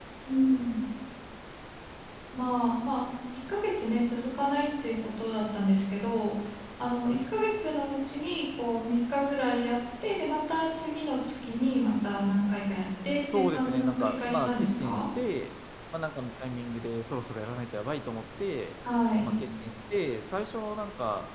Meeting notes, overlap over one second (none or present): present